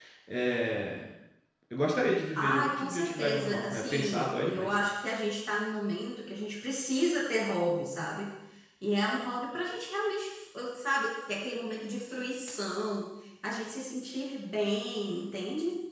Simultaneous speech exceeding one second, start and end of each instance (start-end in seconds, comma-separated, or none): 2.4-4.7